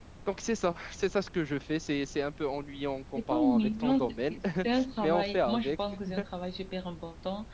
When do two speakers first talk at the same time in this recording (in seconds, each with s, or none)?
3.1 s